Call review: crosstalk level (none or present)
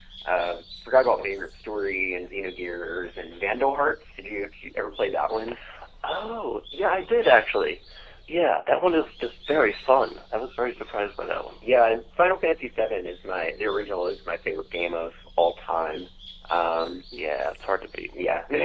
none